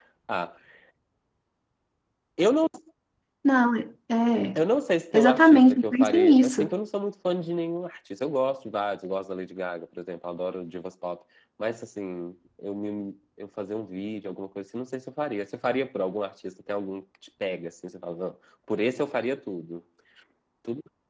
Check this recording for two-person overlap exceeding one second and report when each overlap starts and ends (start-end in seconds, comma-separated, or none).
5.1-6.7